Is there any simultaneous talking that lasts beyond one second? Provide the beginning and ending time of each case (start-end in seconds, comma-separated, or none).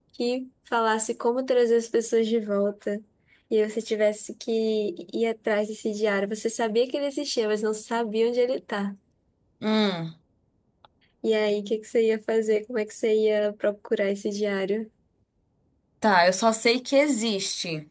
none